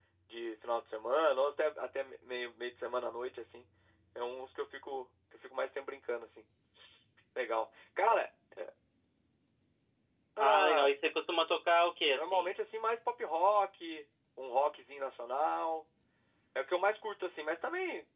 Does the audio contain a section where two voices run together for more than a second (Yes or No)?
No